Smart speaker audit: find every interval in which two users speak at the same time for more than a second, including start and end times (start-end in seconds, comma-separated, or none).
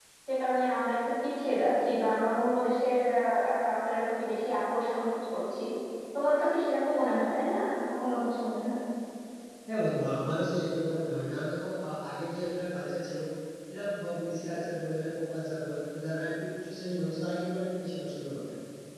none